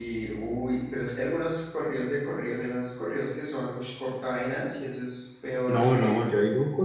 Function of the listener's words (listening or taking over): taking over